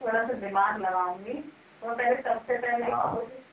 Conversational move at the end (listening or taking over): listening